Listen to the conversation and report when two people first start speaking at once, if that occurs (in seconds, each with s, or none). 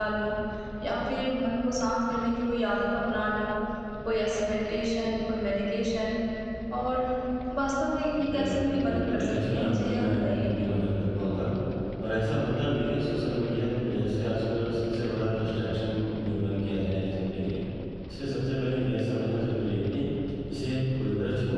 8.3 s